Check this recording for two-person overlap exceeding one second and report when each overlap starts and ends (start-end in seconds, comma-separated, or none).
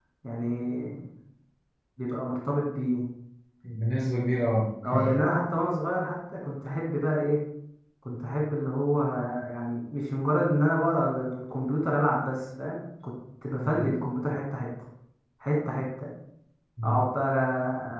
none